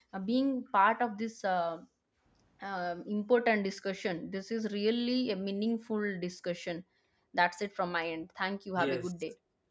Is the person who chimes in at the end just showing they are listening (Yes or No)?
No